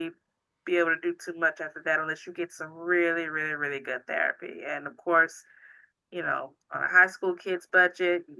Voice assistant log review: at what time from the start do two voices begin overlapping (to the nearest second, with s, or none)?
none